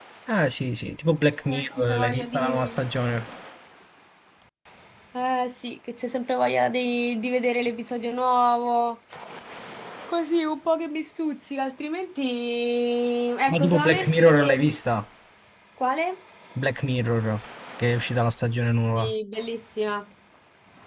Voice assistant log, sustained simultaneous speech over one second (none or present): present